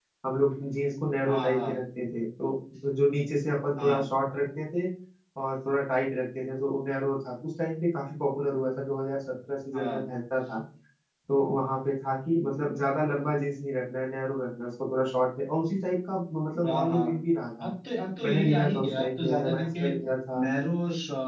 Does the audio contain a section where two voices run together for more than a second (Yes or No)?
Yes